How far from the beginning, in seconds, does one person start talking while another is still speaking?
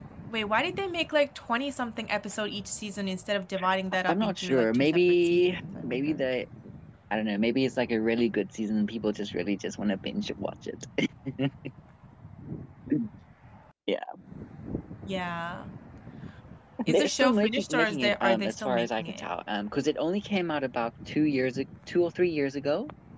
4 s

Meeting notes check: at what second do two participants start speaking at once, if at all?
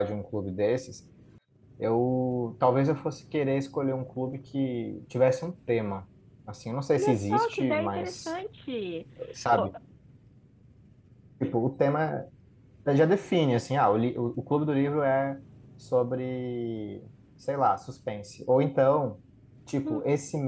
7 s

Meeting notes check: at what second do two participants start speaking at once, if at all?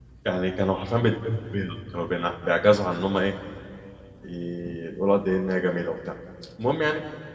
none

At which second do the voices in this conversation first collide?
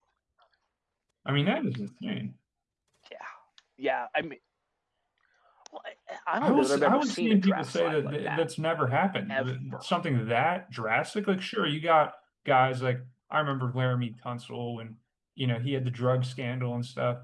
6 s

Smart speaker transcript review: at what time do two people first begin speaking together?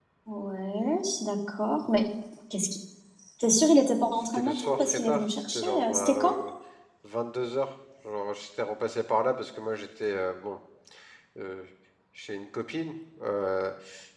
4 s

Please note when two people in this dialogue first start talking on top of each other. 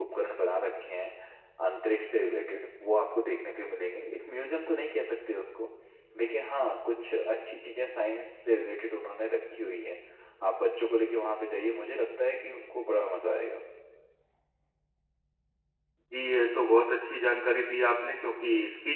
none

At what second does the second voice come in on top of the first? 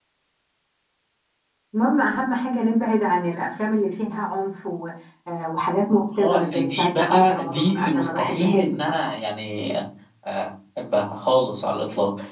6 s

